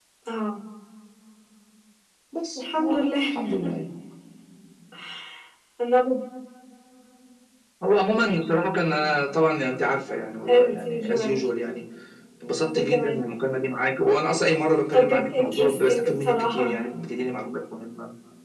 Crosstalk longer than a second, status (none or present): present